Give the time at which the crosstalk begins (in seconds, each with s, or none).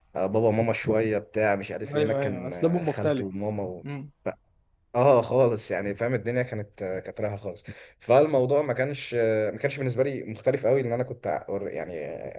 1.8 s